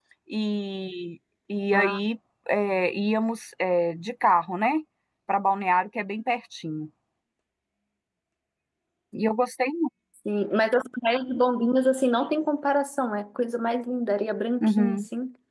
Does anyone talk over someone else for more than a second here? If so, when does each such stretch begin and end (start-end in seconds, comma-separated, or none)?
none